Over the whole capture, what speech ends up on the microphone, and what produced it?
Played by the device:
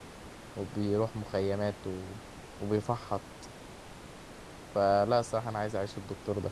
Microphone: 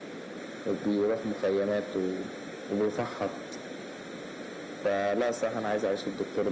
echo only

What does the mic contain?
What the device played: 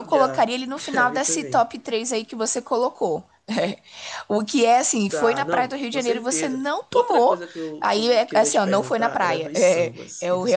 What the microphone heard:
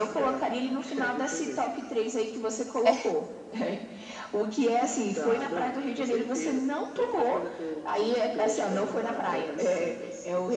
both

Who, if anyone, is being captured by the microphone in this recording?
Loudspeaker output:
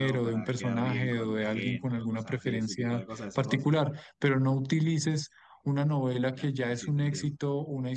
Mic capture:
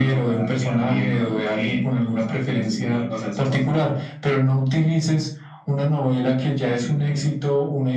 echo only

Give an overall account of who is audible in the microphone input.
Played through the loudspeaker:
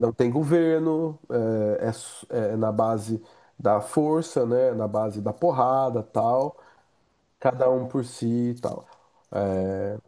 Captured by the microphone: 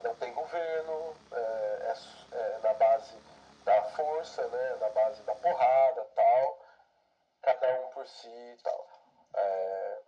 echo only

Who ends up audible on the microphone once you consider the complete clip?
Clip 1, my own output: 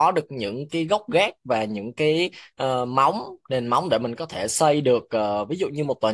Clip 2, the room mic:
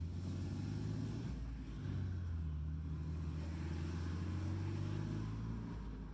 neither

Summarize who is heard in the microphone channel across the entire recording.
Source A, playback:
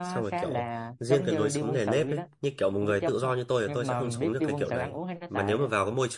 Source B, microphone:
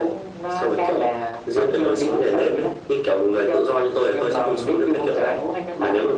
echo only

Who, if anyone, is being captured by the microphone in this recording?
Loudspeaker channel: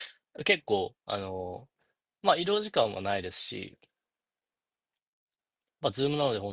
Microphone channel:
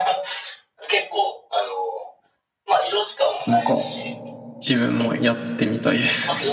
both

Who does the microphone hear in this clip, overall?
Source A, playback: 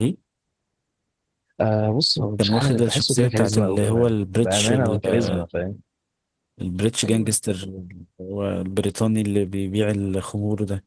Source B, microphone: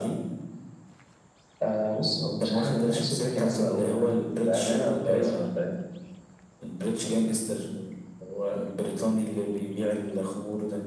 echo only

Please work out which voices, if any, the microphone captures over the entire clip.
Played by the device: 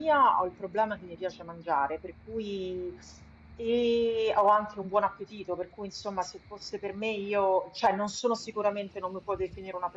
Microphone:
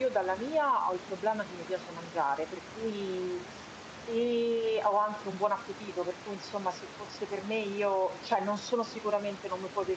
echo only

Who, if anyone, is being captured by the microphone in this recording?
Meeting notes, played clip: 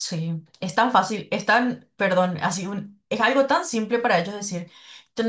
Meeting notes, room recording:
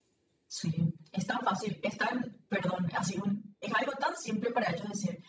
echo only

